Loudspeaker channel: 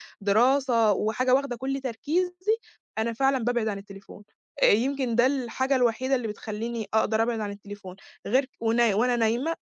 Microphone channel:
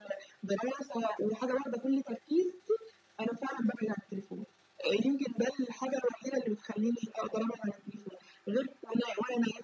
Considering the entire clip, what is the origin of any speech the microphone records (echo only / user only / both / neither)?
echo only